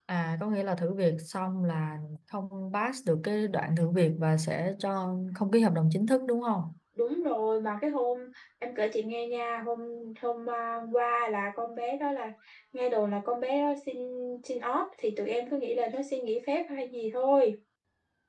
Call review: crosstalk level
none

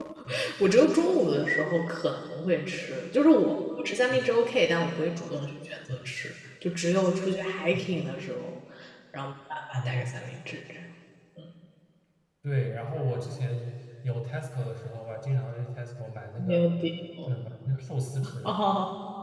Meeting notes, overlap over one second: none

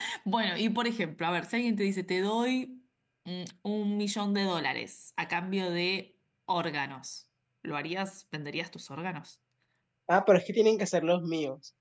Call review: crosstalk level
none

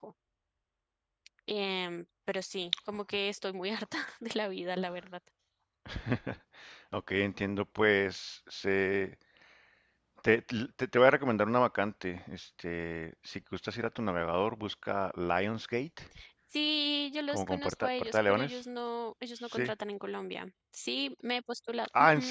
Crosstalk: present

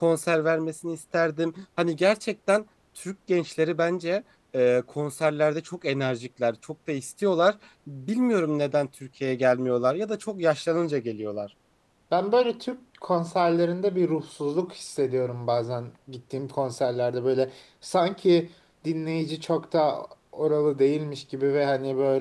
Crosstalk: none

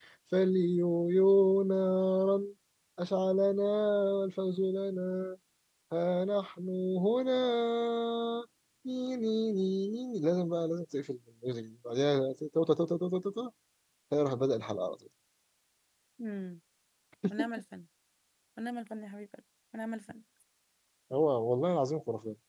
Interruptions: none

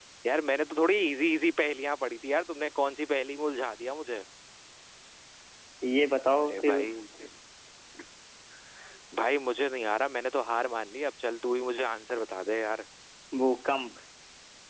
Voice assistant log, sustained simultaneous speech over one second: none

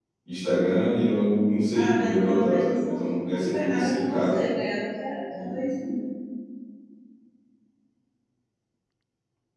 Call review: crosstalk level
present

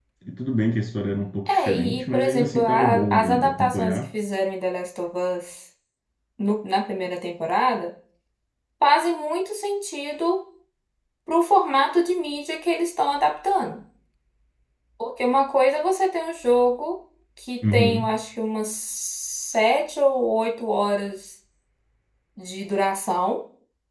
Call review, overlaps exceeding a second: present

